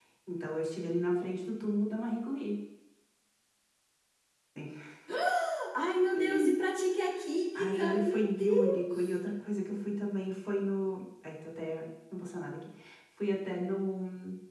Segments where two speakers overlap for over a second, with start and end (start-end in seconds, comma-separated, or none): 7.5-9.2